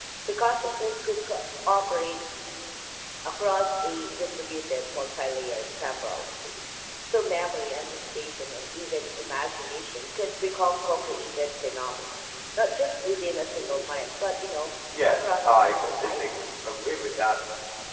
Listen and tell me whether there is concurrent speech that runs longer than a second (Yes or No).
Yes